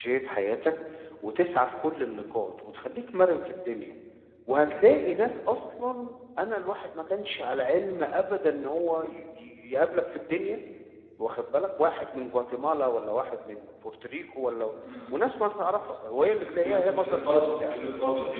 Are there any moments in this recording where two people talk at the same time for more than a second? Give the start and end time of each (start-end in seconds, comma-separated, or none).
16.4-17.7